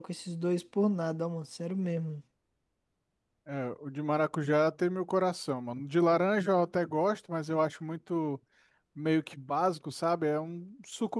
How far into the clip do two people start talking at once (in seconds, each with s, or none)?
none